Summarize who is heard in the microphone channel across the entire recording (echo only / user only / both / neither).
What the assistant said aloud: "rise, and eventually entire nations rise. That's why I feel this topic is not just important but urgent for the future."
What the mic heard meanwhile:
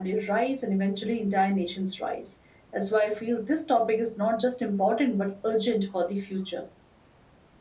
echo only